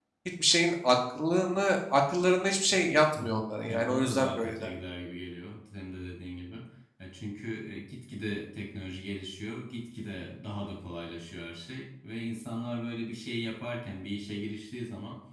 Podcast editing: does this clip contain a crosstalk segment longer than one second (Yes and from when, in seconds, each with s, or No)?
Yes, from 3.2 s